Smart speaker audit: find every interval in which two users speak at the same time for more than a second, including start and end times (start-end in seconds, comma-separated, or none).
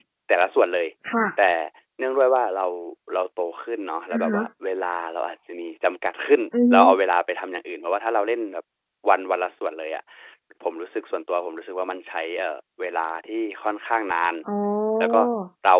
none